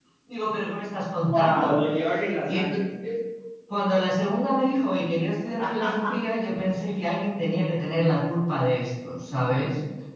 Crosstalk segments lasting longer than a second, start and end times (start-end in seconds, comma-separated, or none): none